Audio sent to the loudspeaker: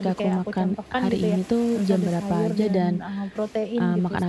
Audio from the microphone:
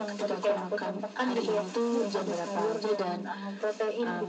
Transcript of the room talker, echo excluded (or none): Betul.